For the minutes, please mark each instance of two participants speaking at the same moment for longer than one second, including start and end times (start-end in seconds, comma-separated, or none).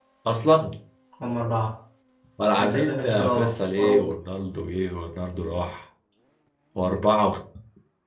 2.6-4.2